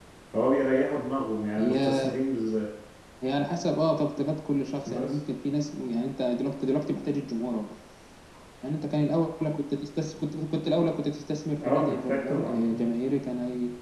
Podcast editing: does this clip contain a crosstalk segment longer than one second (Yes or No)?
Yes